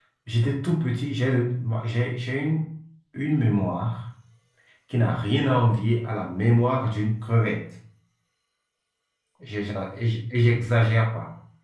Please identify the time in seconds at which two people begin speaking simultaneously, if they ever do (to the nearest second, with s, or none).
none